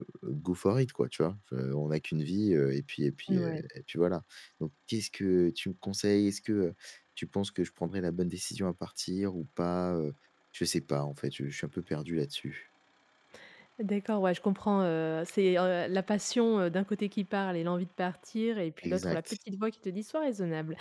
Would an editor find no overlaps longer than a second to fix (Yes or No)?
Yes